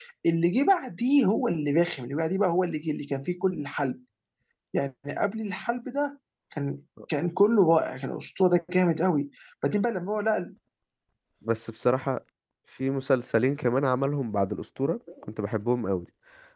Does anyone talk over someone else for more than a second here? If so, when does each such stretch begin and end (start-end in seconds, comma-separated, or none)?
none